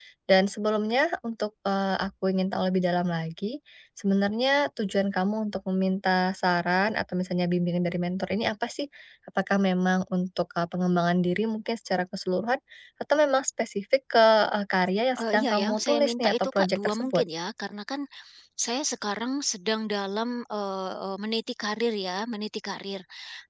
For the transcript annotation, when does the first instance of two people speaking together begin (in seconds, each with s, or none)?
15.2 s